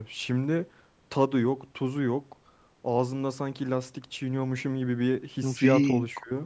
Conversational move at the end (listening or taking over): taking over